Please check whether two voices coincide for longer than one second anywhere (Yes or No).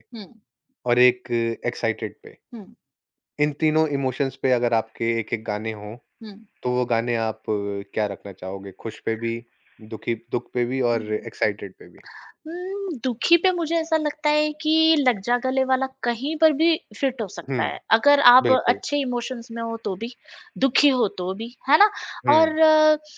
No